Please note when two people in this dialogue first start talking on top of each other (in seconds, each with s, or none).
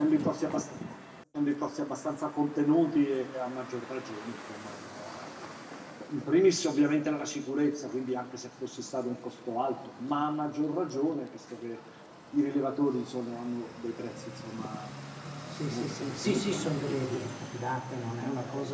15.7 s